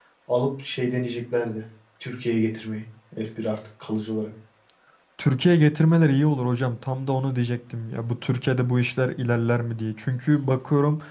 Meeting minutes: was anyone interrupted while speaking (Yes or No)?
No